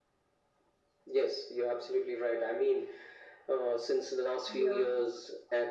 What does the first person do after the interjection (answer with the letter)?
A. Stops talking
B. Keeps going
B